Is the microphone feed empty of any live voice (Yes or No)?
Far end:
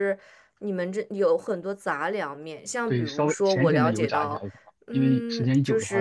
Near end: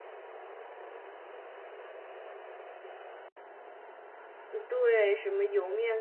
No